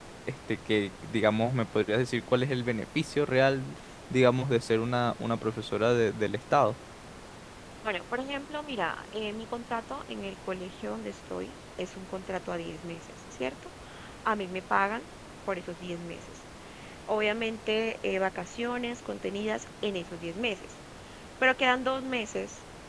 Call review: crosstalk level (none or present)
none